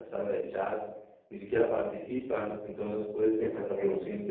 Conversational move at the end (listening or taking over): listening